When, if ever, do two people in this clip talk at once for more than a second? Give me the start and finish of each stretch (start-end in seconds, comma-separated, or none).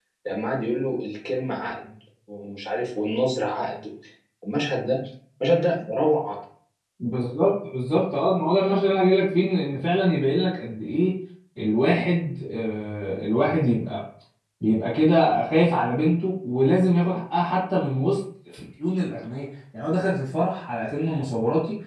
none